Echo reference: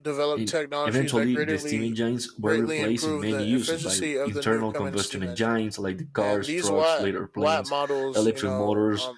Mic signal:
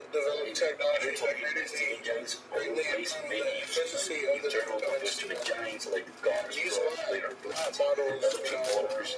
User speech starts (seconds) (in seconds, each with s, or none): none